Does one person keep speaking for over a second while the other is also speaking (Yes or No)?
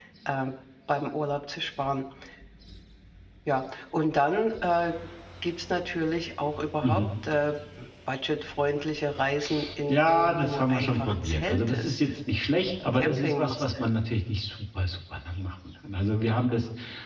Yes